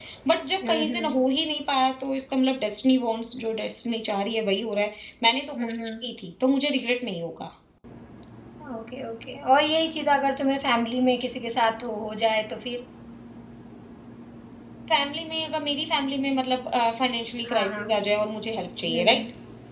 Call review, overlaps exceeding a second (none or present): none